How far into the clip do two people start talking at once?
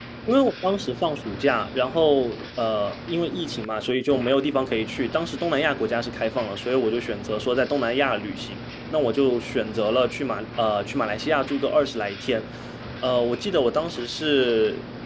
none

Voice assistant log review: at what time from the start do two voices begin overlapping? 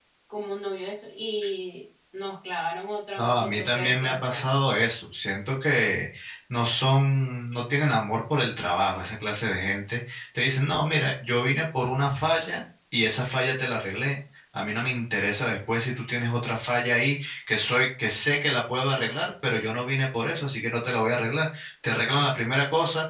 3.2 s

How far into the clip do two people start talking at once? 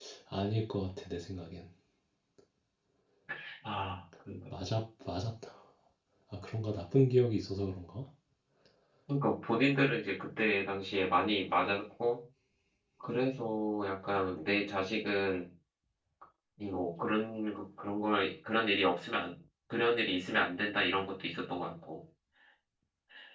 none

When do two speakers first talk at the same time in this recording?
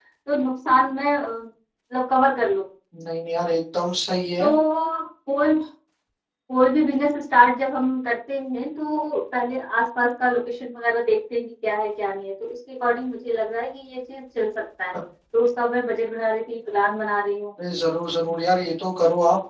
none

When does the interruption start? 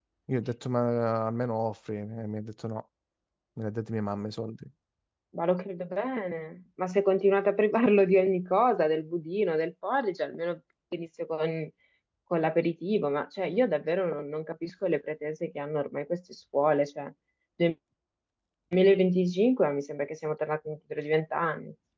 none

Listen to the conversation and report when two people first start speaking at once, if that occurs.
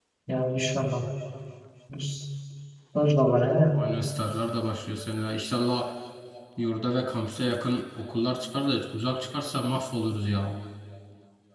none

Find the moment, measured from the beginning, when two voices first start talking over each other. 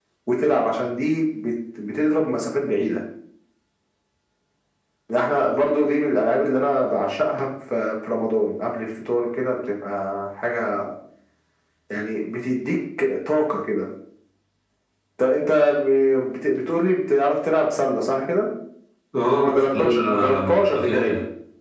19.3 s

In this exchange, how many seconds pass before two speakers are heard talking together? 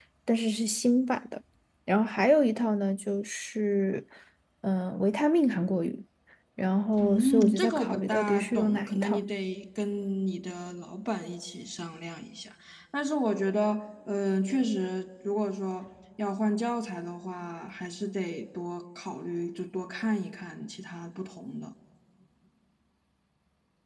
7.0 s

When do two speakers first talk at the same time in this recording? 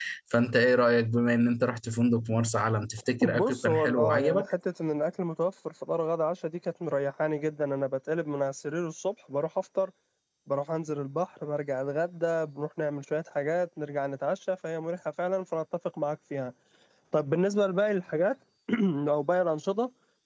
3.2 s

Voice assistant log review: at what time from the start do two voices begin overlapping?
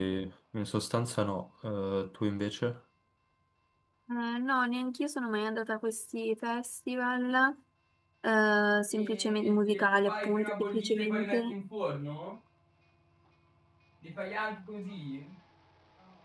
8.9 s

